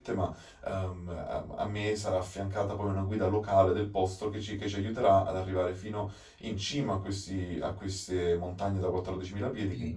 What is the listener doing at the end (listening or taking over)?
taking over